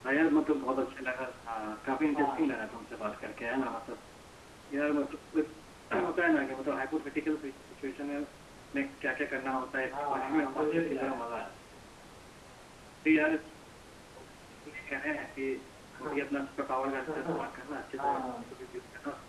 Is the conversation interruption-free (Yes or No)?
No